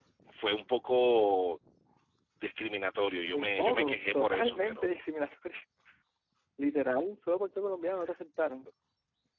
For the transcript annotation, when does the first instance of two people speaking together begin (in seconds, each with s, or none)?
3.3 s